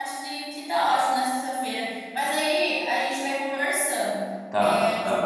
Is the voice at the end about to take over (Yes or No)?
No